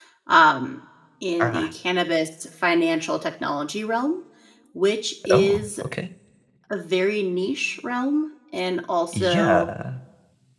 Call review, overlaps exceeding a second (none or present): none